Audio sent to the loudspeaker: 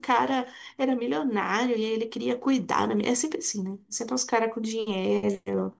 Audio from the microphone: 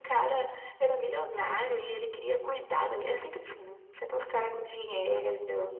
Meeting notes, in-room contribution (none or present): none